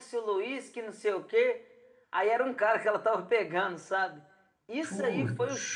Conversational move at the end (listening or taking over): listening